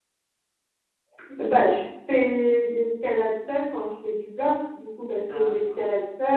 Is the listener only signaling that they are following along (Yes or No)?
Yes